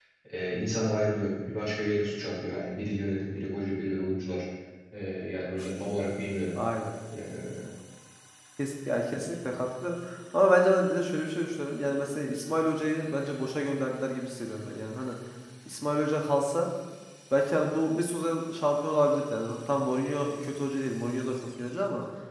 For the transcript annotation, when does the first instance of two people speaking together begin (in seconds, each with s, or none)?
none